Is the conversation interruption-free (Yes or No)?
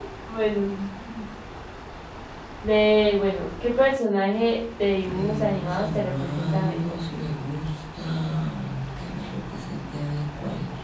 No